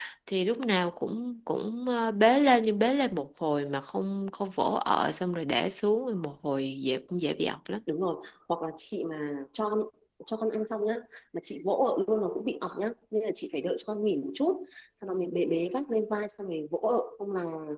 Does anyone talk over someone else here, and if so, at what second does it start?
none

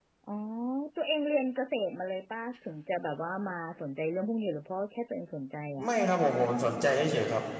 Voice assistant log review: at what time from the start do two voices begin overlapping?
none

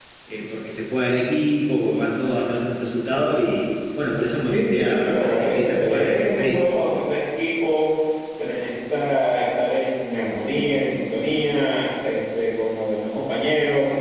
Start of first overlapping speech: 4.4 s

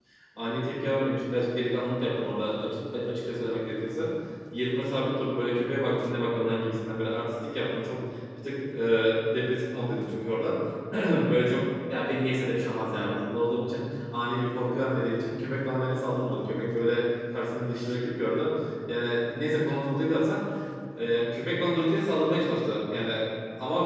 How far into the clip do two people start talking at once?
none

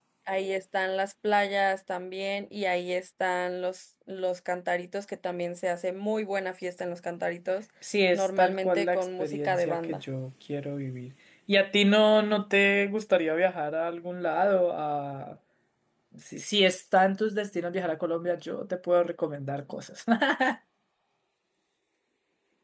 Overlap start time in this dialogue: 8.1 s

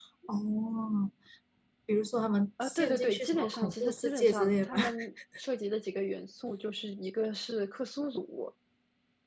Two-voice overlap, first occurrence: 2.6 s

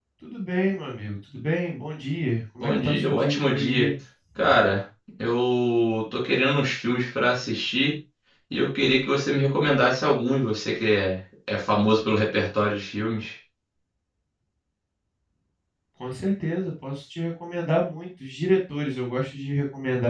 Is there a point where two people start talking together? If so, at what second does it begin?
2.6 s

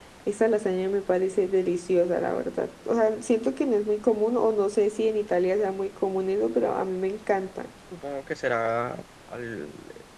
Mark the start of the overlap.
none

